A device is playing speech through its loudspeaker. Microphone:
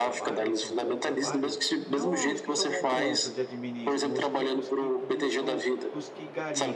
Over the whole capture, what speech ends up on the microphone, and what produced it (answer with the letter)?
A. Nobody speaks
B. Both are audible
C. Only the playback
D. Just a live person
B